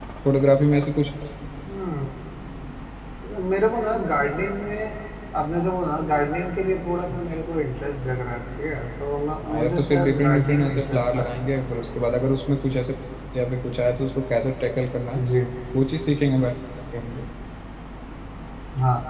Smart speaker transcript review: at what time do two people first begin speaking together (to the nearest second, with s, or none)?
9 s